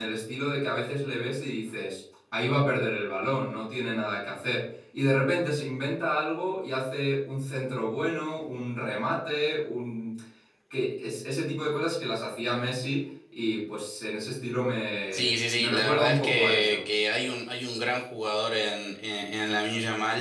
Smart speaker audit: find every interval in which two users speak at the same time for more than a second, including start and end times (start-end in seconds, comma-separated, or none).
15.1-16.8